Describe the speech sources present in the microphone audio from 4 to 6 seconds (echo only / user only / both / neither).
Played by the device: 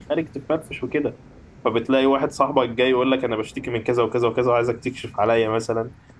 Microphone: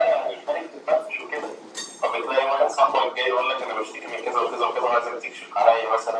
echo only